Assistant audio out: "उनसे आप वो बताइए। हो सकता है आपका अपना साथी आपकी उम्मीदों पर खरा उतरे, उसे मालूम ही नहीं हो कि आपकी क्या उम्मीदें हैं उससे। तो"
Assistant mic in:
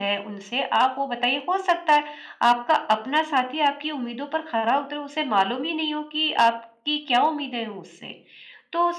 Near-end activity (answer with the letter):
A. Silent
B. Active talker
A